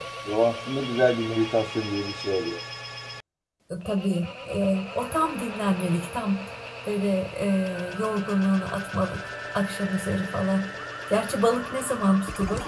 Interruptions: none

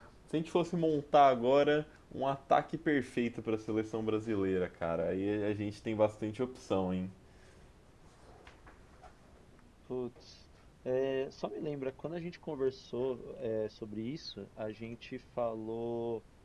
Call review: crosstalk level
none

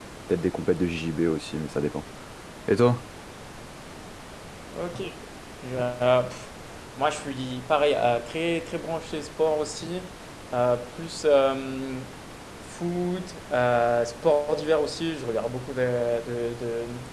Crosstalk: none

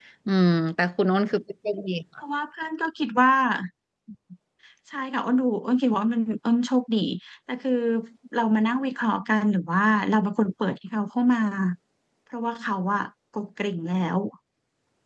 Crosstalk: none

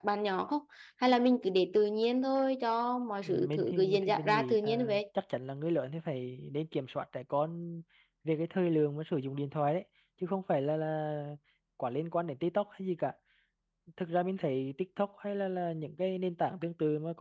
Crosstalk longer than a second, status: present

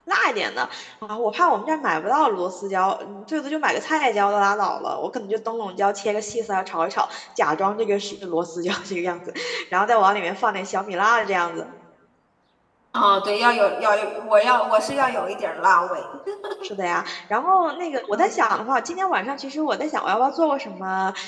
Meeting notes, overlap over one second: none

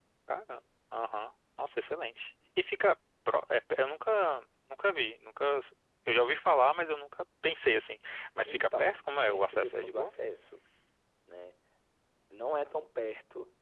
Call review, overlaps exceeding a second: present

